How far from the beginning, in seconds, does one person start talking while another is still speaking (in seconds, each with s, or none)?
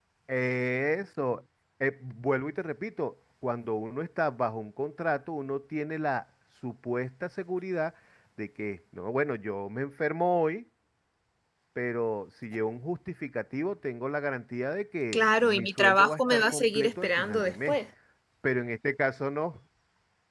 15.1 s